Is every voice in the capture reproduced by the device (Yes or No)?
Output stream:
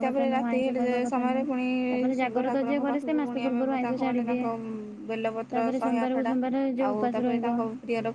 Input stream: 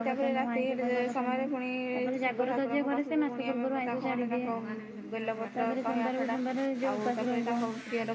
No